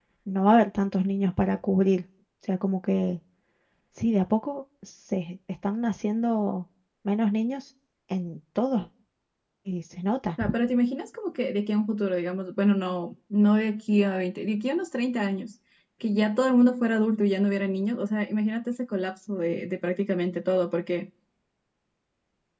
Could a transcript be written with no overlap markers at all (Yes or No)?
Yes